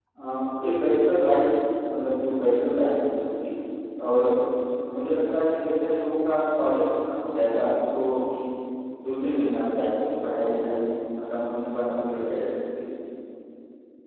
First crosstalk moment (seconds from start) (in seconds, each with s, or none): none